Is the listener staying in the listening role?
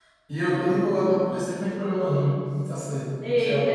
No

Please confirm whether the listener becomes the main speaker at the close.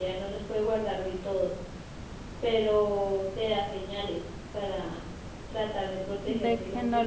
Yes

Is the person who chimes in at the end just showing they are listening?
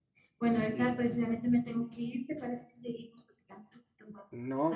No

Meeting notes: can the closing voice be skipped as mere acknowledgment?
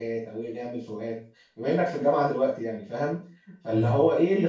Yes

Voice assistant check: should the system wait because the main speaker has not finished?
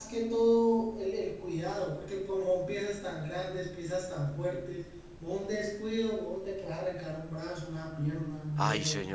No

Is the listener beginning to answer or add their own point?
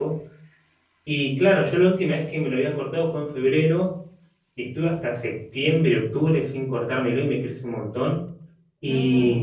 No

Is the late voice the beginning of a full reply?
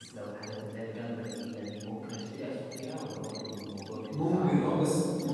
Yes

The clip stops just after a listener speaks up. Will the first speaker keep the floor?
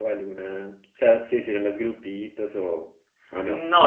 No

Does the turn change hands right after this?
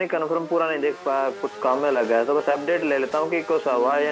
Yes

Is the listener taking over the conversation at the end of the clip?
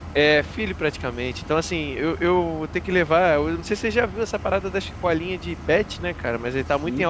No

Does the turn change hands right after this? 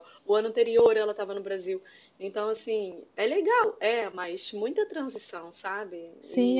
Yes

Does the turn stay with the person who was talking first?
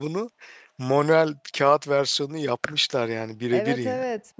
No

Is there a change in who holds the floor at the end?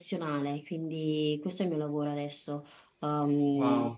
Yes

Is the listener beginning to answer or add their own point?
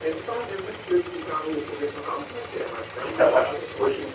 Yes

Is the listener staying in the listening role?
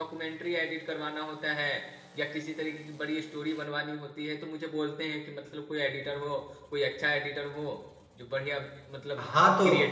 No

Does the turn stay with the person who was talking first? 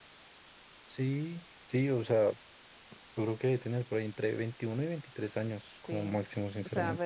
No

